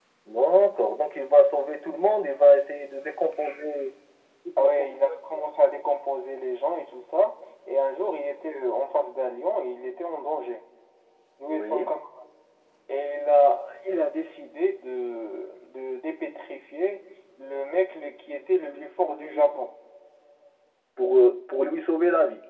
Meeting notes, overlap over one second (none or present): none